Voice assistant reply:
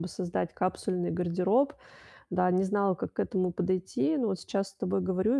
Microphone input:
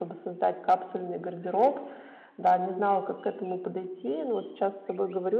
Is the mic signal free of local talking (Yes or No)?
Yes